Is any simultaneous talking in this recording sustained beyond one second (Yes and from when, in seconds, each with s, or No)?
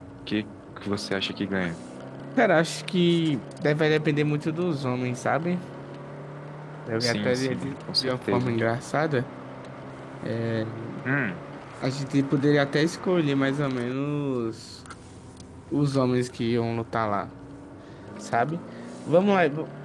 Yes, from 7.0 s